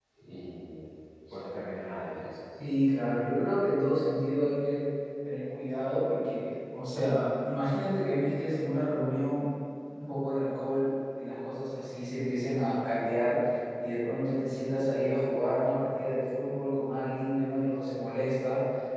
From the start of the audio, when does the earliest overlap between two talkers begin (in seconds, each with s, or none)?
none